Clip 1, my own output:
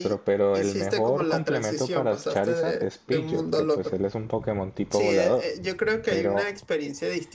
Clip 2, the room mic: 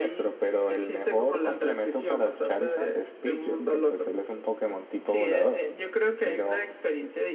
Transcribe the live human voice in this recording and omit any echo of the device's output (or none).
none